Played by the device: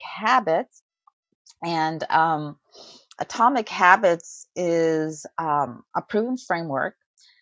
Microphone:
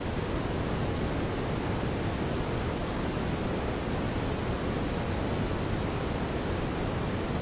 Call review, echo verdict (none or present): none